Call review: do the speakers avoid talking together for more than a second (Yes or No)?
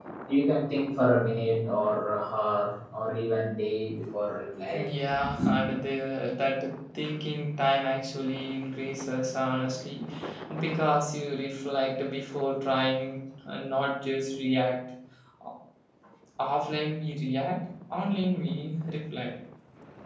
Yes